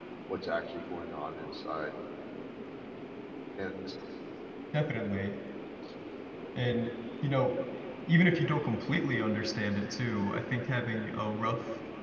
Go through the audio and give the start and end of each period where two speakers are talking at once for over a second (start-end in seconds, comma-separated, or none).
none